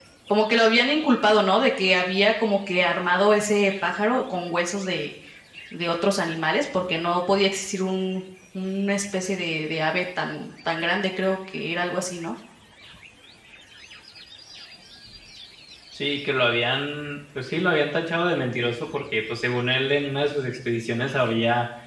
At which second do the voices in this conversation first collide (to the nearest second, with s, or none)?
none